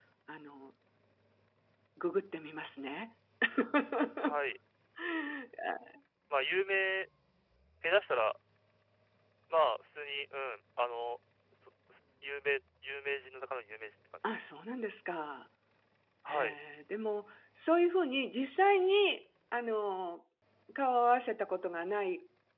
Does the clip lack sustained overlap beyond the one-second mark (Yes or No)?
Yes